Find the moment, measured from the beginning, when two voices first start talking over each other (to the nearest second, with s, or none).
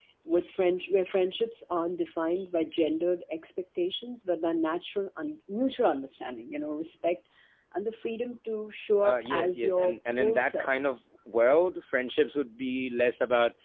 9 s